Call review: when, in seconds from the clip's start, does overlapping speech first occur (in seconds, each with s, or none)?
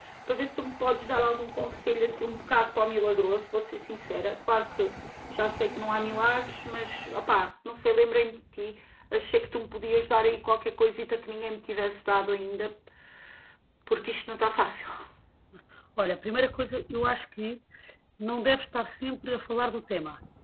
none